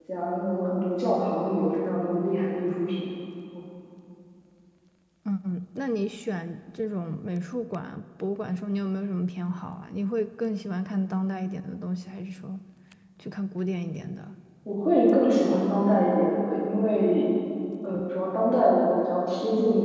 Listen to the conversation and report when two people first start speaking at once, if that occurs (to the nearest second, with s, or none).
none